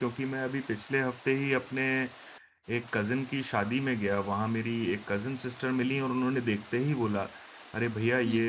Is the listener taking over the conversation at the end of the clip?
No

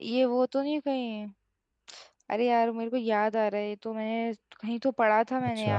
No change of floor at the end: No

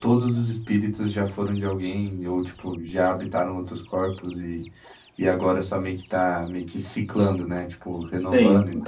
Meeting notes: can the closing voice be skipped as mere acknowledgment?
No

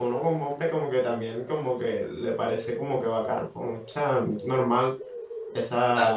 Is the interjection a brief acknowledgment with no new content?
No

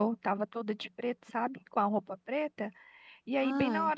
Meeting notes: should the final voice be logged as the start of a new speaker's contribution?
No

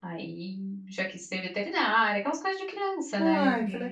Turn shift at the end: Yes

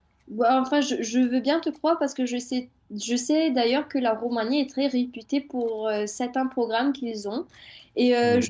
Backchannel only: Yes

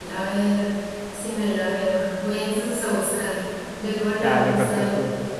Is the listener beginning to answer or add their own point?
Yes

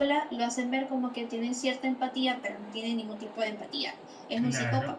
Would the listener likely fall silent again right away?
No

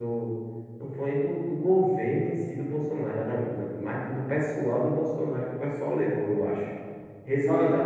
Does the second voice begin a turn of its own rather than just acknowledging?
Yes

